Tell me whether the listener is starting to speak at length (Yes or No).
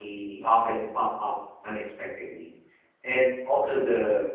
No